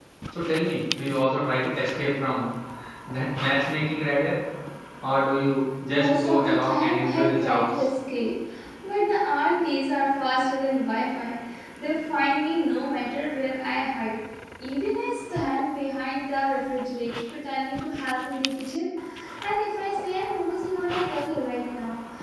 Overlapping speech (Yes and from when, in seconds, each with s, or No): Yes, from 5.8 s